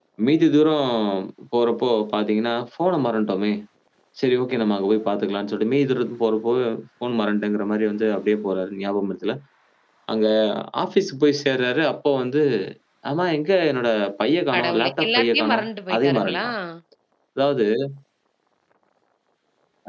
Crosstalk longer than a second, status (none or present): present